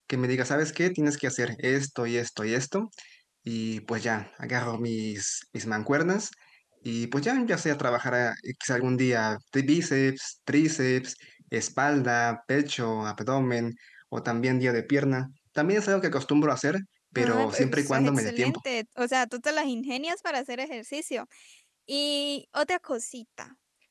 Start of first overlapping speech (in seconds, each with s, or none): 17.2 s